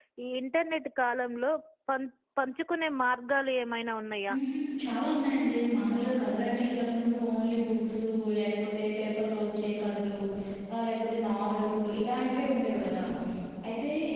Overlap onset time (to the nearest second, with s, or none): none